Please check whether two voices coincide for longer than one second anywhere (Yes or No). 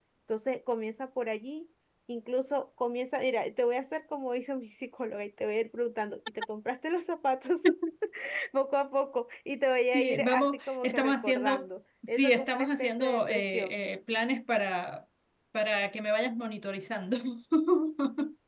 Yes